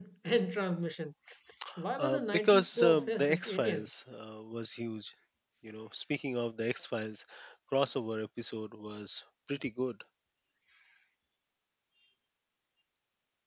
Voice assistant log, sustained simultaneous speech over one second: present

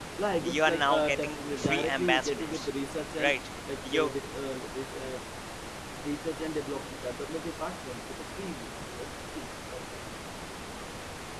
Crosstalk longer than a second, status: present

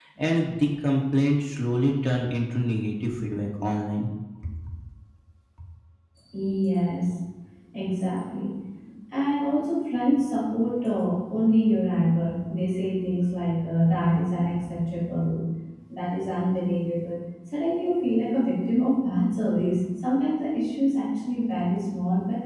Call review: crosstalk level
none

